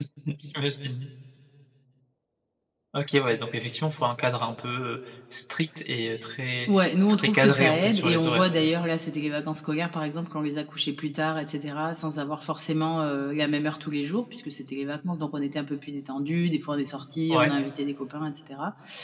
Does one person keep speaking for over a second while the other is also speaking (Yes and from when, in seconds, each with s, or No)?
Yes, from 7.1 s